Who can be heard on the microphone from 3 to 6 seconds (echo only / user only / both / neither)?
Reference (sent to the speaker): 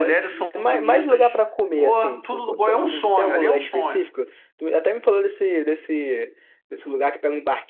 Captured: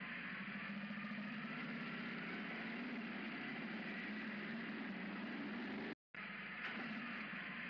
neither